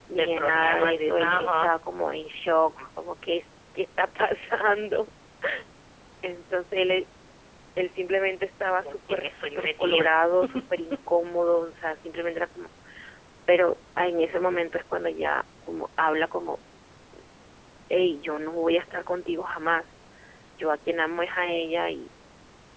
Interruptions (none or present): present